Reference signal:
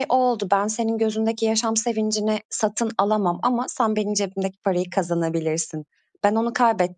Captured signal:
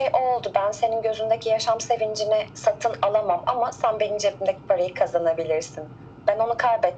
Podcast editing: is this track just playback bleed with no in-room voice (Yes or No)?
Yes